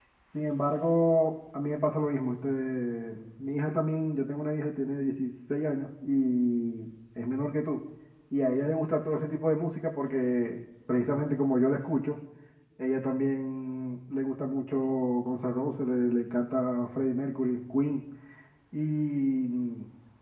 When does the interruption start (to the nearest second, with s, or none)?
none